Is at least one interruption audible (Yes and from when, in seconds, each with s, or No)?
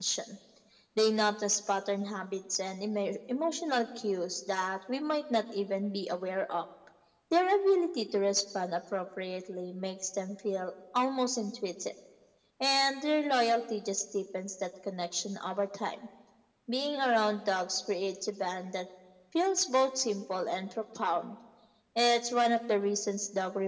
No